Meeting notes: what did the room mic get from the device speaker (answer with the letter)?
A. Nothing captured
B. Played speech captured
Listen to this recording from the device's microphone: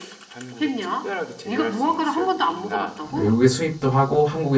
B